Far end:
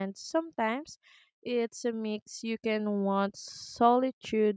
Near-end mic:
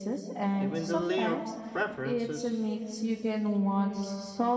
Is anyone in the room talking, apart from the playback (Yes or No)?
Yes